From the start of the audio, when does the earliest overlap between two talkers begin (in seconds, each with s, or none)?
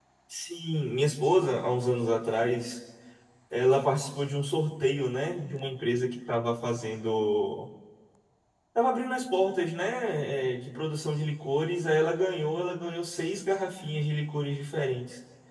none